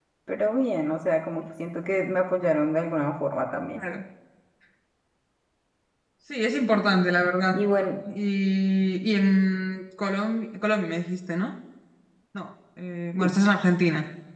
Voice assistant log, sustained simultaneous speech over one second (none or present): none